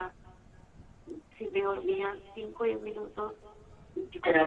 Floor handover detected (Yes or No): No